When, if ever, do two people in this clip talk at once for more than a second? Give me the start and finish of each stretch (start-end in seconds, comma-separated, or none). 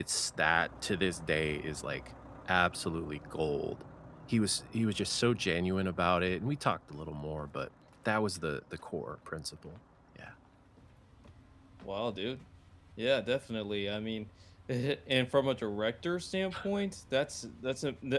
none